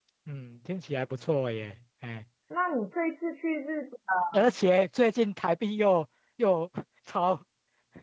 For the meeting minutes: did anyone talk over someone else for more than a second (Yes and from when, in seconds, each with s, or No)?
No